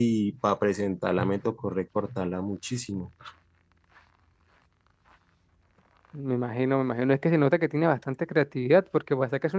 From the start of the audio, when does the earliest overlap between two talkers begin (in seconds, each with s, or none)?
none